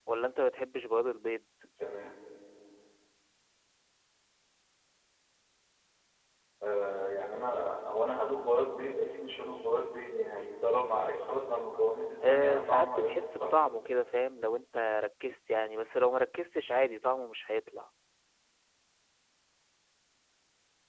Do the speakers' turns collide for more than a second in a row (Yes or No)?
Yes